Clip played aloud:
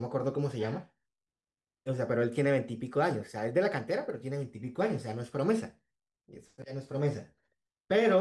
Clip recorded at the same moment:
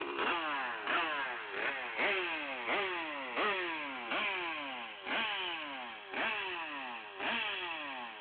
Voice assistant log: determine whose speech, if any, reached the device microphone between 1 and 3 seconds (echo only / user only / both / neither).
neither